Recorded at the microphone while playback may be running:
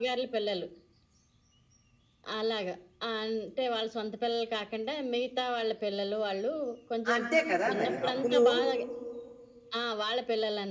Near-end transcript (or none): అంతే కదా! మరి. అప్పులు,